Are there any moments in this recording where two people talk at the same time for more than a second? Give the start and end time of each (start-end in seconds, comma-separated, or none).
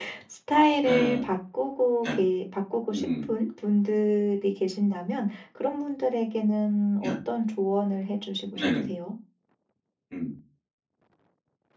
none